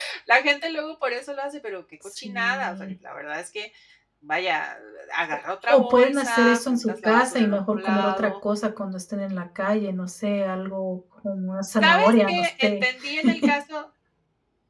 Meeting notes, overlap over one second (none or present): present